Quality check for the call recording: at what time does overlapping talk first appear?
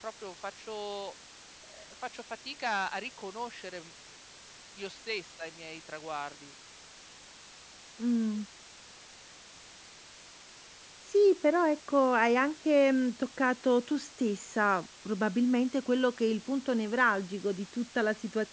none

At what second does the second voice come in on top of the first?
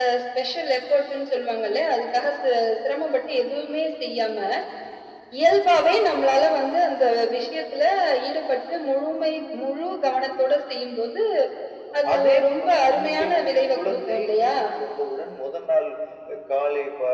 12 s

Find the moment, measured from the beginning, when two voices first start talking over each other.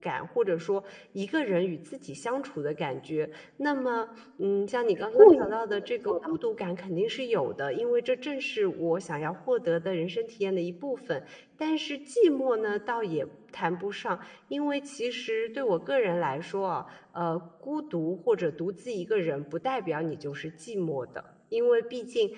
5 s

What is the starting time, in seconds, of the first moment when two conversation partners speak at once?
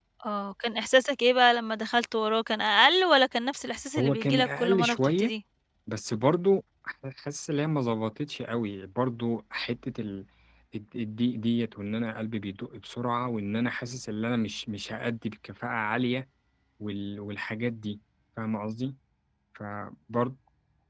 4 s

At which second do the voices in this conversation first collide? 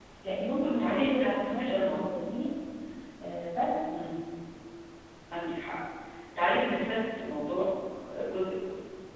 1 s

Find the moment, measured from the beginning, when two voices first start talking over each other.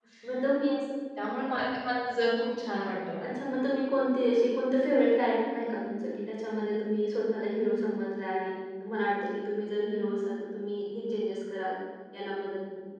none

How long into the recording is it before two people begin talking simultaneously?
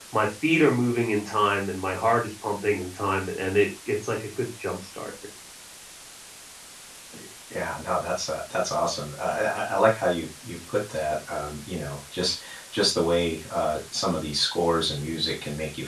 none

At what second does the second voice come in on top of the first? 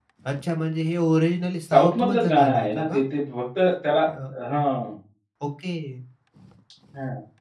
2 s

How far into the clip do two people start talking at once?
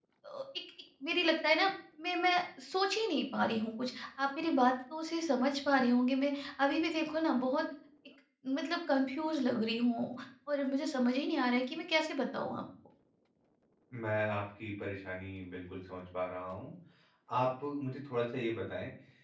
none

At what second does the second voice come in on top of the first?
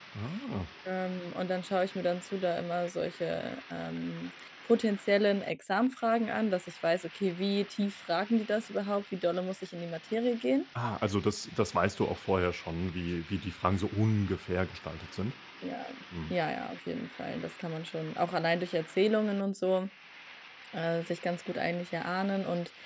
none

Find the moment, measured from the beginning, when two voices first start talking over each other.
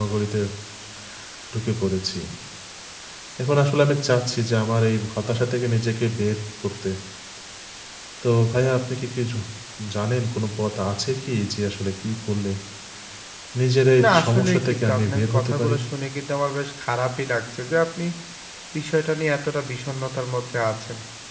14 s

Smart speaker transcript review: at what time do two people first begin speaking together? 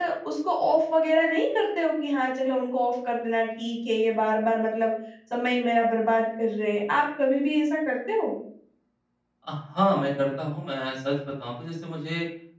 none

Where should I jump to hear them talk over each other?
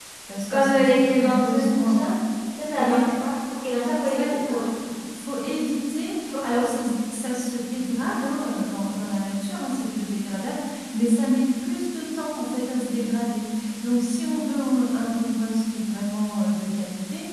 1 s

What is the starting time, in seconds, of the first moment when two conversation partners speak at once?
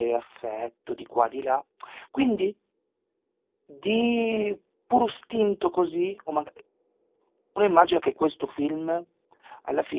none

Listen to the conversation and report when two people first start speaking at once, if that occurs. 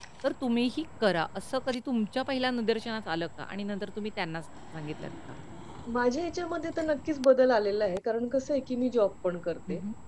none

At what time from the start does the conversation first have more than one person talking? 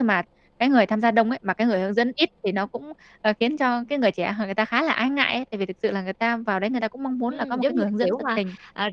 7 s

